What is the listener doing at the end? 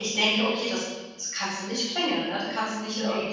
listening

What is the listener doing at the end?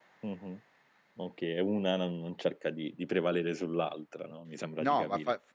taking over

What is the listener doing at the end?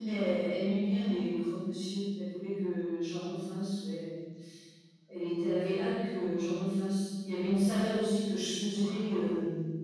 listening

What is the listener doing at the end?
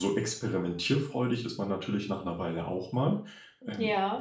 listening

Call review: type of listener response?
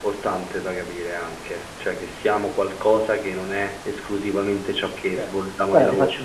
taking over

